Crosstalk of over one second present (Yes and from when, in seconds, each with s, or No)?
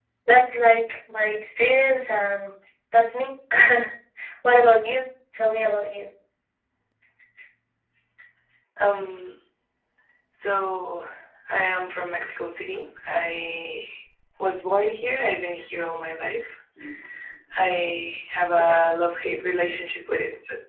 No